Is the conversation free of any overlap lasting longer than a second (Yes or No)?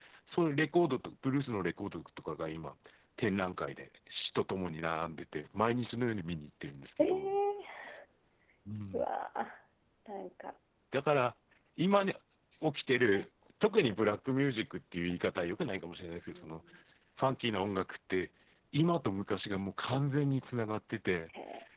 Yes